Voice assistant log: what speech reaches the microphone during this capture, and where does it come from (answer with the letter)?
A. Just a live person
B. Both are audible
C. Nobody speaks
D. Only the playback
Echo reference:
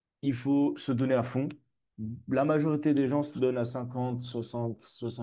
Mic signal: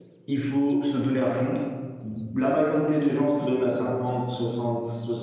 D